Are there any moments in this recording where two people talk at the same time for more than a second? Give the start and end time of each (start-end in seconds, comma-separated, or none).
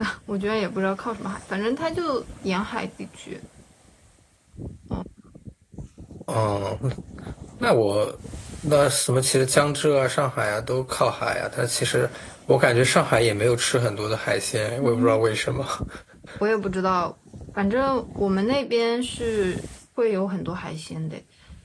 none